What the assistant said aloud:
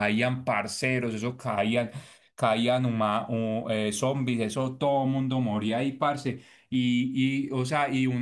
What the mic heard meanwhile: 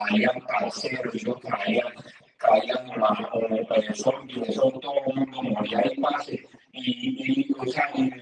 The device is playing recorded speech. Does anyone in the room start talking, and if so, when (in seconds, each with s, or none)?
none